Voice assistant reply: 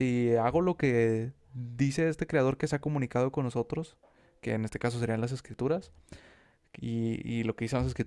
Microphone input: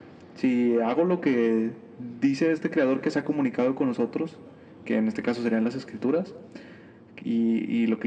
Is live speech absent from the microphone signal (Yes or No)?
Yes